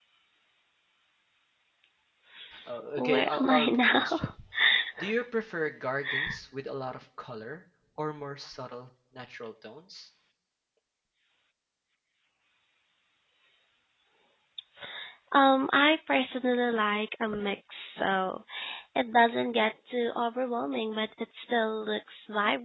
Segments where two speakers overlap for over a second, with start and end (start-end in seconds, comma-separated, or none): 3.0-4.3